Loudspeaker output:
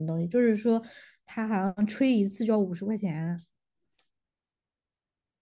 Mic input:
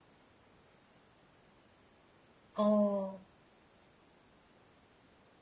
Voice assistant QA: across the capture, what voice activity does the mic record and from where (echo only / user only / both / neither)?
user only